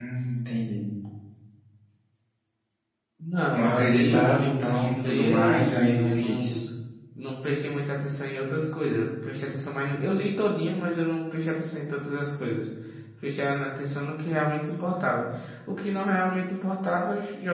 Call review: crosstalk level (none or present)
present